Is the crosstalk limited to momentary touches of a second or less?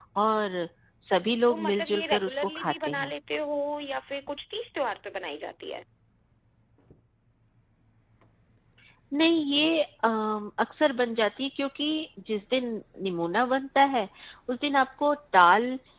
No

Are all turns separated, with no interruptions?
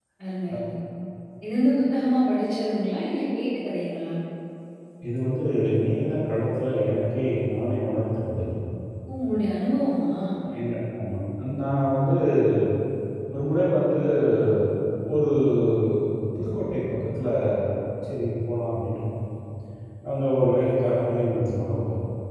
Yes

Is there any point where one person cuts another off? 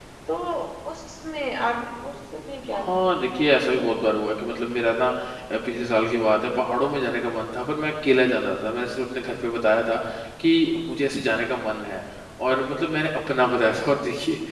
Yes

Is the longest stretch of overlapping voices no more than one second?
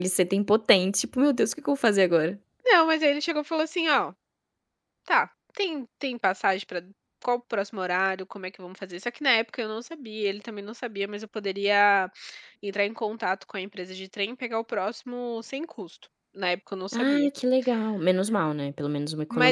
Yes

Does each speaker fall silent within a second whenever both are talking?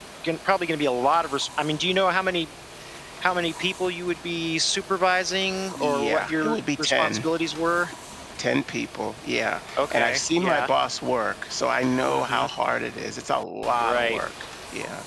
No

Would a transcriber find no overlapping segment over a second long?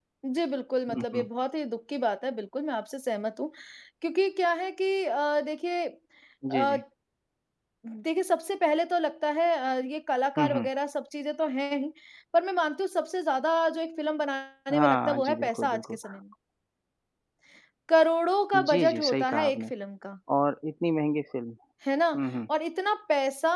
No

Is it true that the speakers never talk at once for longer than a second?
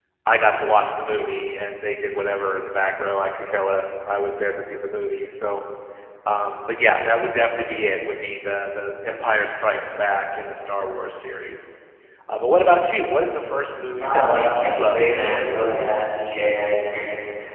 No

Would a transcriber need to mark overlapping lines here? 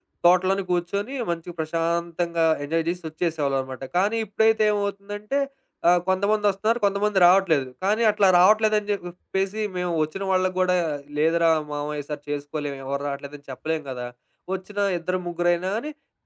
No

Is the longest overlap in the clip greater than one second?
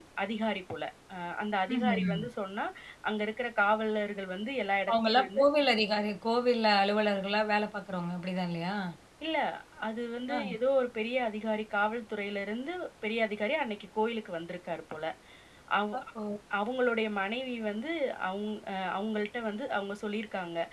No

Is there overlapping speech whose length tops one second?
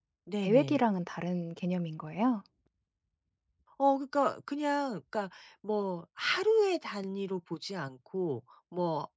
No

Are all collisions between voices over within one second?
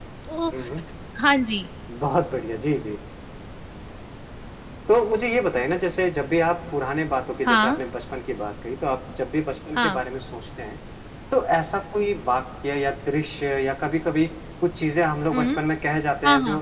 Yes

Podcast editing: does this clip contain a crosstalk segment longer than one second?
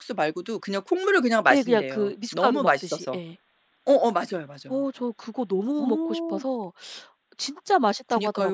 Yes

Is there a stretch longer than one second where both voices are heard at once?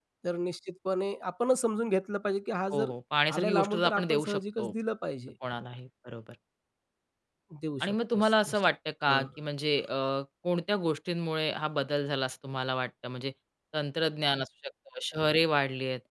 Yes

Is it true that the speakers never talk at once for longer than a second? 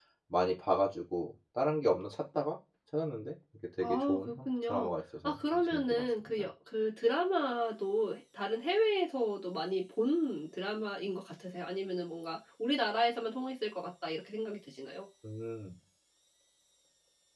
No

